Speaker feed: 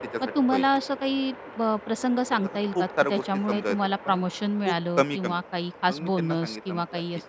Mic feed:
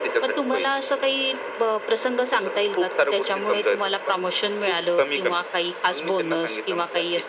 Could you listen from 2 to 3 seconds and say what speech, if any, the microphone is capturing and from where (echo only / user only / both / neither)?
echo only